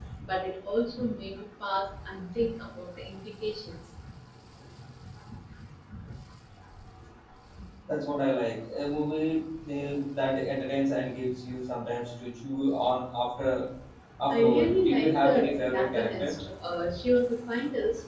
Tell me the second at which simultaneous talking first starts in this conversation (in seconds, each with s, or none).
14.3 s